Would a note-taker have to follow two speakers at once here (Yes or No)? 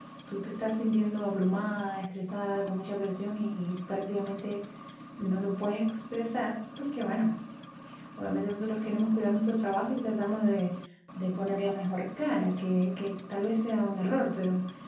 No